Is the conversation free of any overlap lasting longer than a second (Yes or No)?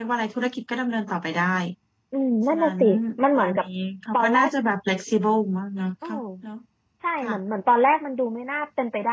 Yes